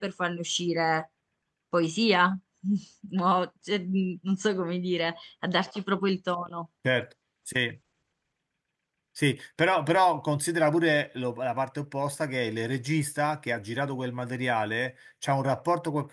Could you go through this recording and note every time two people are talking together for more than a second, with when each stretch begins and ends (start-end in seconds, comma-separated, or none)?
none